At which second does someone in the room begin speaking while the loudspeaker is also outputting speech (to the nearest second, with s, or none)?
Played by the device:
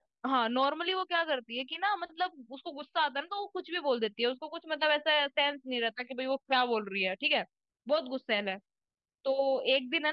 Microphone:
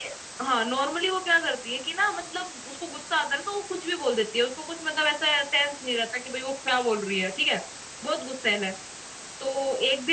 none